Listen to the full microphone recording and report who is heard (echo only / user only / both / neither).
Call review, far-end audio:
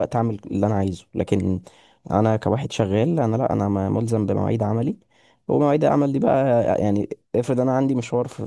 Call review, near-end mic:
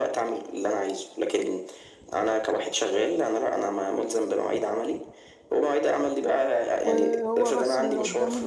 both